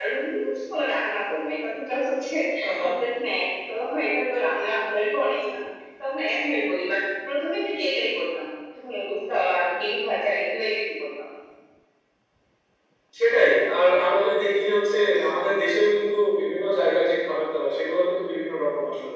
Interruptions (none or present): none